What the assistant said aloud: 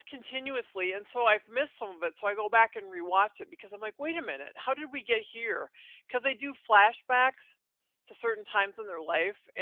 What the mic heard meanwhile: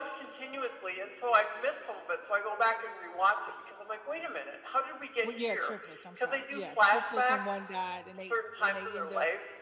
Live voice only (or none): Well, yeah, triplets, I'm sorry. Yeah, triplets and 1 died and they and they end up